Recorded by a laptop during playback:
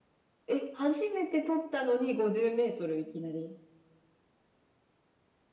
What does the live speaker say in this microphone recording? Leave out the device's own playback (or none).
none